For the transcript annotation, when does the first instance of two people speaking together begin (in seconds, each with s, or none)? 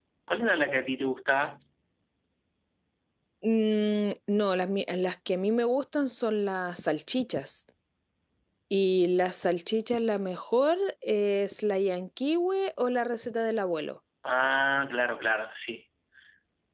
none